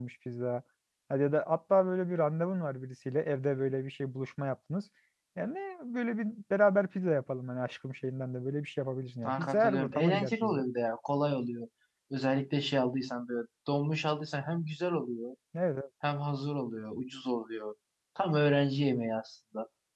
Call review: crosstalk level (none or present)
present